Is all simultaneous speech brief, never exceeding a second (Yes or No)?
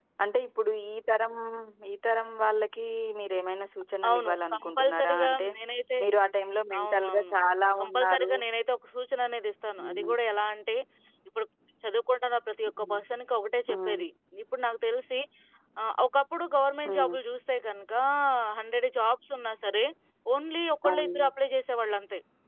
No